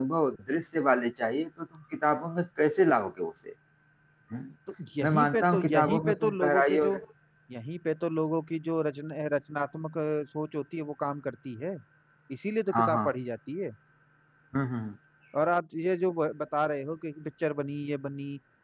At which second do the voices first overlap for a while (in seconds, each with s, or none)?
5.0 s